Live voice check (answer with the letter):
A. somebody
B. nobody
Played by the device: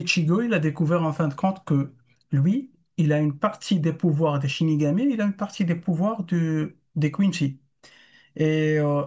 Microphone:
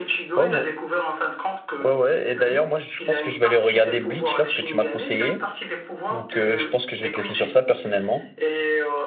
A